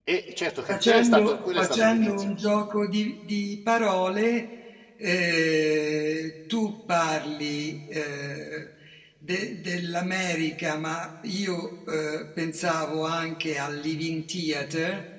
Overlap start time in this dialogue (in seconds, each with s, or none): 0.7 s